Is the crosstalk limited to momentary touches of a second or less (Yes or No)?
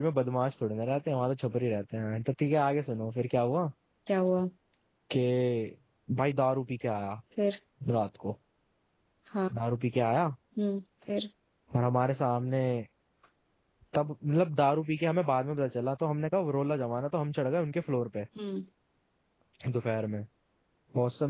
Yes